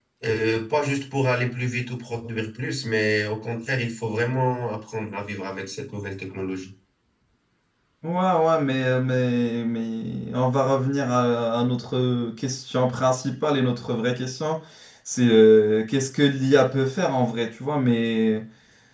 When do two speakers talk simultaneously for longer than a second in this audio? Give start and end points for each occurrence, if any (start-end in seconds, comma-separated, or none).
none